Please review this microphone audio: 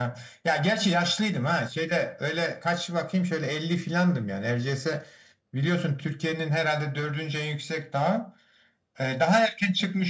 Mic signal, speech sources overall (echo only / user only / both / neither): echo only